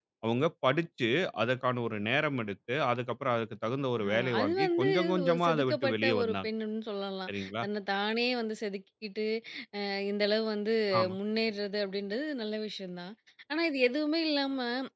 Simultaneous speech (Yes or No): Yes